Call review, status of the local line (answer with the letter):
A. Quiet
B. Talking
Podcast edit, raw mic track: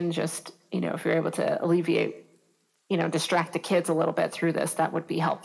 A